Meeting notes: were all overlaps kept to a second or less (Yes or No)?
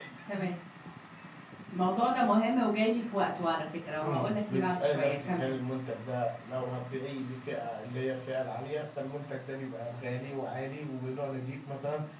No